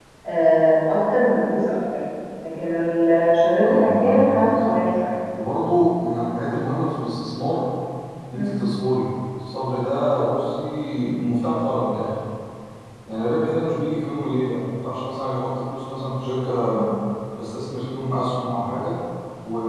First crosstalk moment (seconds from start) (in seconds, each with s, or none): 3.5 s